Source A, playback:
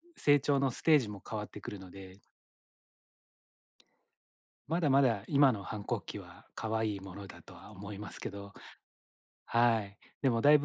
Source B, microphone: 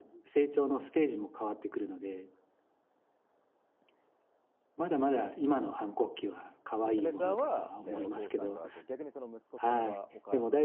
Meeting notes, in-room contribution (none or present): present